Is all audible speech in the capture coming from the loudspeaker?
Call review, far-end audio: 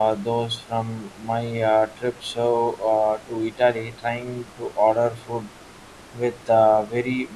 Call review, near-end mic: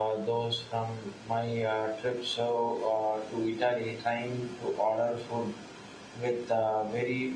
Yes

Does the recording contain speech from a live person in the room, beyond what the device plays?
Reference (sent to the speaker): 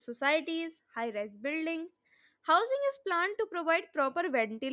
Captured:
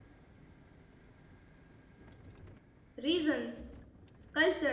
Yes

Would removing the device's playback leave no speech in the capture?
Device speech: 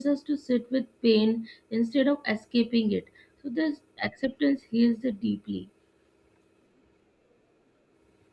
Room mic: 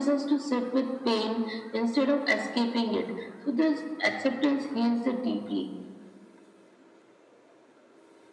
Yes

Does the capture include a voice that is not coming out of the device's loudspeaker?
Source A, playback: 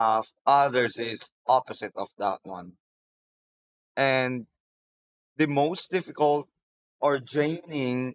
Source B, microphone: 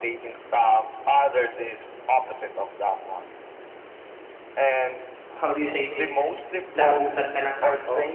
Yes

